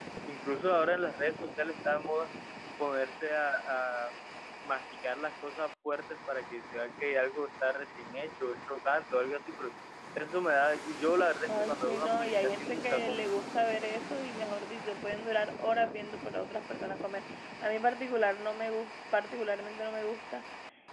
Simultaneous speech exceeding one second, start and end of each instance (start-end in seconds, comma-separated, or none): 11.5-13.2